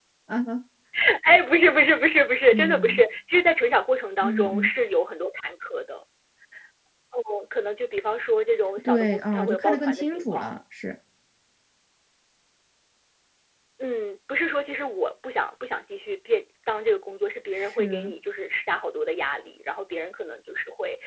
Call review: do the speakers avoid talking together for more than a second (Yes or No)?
No